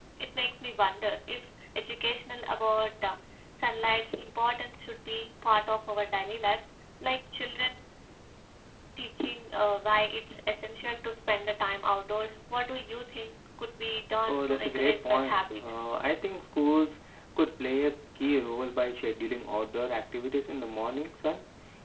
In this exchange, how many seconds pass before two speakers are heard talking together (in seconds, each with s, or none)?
14.3 s